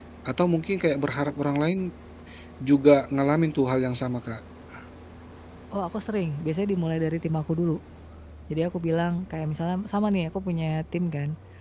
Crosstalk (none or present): none